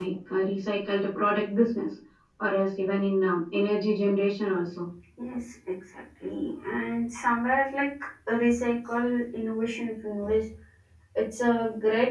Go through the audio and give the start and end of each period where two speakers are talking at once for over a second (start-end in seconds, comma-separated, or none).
none